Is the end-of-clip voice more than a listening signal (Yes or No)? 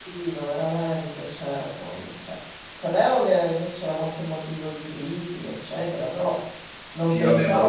Yes